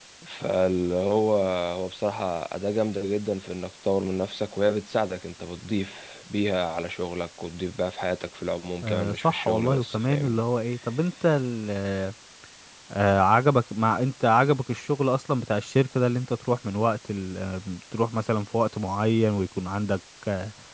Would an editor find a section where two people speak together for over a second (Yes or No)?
Yes